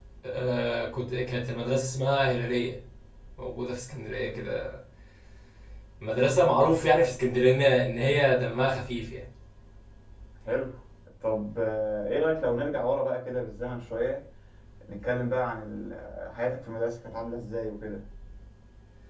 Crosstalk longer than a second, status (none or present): none